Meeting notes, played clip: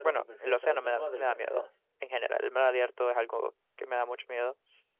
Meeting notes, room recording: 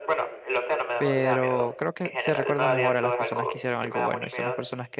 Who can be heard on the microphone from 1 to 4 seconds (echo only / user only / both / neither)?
both